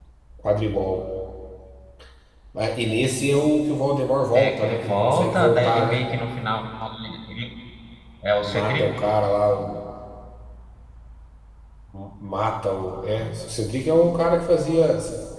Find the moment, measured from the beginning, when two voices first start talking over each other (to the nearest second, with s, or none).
4 s